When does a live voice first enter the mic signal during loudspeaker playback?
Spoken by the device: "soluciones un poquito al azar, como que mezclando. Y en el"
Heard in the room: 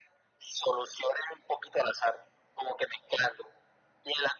none

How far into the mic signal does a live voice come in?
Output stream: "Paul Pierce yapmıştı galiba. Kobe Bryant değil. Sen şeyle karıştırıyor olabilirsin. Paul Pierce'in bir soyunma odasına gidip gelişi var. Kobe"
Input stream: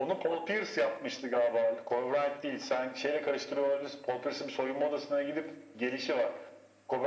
none

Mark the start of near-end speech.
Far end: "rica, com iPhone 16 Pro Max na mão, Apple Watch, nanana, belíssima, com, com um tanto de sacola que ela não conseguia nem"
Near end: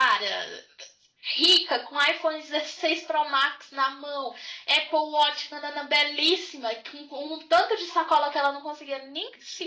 none

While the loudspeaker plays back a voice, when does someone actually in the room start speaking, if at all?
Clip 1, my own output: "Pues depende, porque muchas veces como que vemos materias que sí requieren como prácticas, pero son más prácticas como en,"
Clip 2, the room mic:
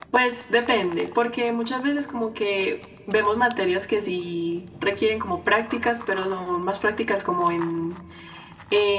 none

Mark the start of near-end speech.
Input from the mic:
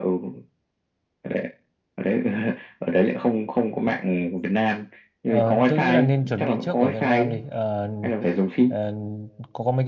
5.2 s

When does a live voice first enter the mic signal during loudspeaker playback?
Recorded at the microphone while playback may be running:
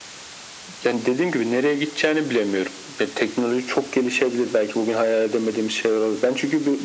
none

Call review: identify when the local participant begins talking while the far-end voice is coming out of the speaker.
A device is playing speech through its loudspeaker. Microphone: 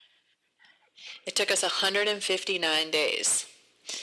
none

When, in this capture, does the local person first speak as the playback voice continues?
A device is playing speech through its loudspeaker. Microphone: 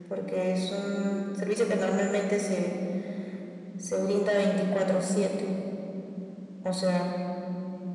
none

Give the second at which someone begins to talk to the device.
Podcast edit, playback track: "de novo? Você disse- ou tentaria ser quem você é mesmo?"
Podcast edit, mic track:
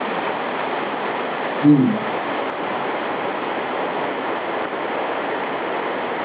1.6 s

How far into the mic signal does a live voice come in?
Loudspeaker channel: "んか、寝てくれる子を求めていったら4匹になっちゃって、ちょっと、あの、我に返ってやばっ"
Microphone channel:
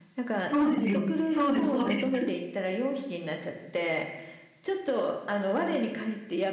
0.5 s

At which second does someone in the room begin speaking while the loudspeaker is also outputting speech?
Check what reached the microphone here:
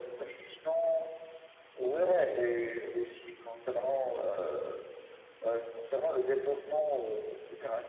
none

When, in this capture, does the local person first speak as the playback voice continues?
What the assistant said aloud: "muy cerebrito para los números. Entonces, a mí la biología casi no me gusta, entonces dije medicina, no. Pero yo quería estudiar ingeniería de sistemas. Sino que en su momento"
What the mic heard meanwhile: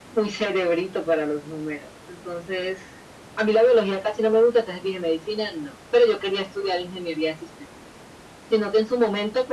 none

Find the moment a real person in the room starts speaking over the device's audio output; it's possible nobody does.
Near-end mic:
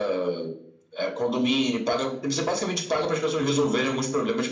none

